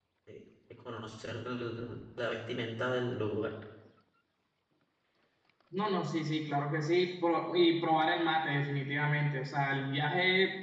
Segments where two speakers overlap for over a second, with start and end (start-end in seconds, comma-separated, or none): none